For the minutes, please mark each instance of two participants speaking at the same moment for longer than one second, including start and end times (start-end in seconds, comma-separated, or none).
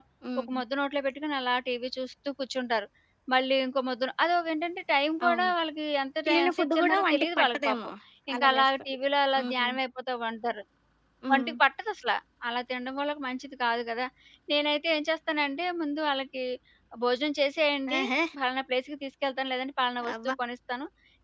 6.3-7.9